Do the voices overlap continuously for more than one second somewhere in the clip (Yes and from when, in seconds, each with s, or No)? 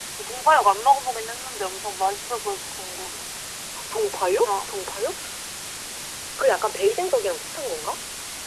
No